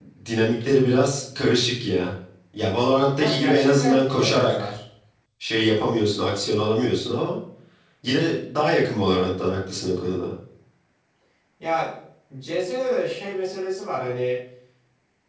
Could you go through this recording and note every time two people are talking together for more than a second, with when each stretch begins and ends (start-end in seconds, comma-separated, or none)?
3.2-4.7